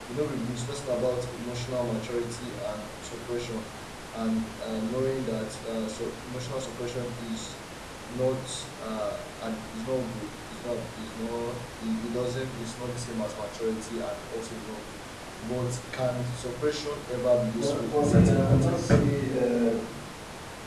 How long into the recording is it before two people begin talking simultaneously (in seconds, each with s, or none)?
17.6 s